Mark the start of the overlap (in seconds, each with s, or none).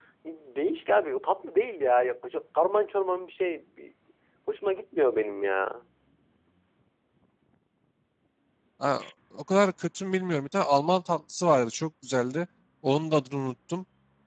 none